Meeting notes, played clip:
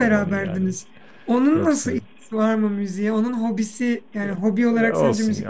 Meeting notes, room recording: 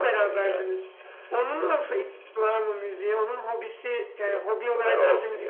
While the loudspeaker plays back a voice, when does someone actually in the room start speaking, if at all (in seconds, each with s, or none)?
none